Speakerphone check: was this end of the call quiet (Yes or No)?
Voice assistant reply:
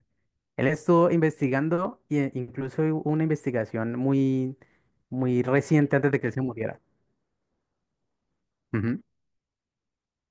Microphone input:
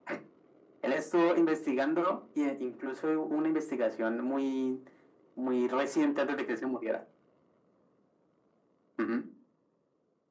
Yes